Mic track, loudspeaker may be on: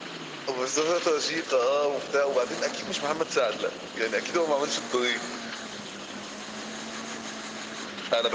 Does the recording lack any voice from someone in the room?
Yes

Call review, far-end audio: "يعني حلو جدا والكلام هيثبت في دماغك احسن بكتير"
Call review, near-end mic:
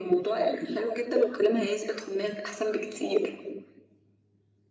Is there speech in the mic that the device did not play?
No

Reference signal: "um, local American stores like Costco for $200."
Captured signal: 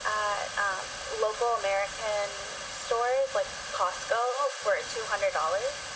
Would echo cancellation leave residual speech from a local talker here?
No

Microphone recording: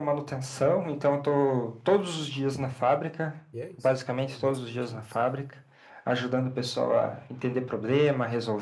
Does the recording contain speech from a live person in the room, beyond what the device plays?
Yes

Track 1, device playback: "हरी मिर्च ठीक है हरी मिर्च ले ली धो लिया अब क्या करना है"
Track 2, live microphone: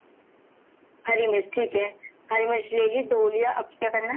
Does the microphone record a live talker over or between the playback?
No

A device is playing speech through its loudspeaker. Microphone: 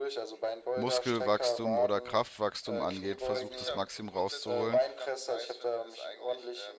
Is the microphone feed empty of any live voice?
No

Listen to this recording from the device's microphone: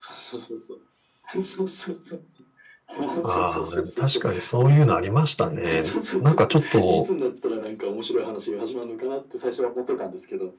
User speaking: Yes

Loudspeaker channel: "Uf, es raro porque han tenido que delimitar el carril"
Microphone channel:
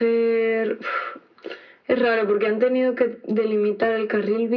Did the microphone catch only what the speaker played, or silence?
Yes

